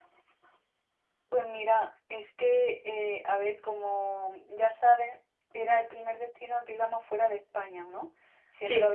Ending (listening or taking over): listening